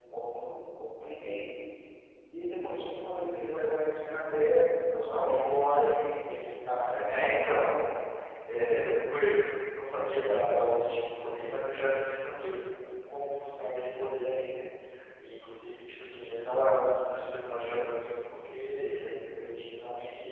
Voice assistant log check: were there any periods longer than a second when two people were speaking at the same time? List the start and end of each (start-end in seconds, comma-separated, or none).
4.9-6.5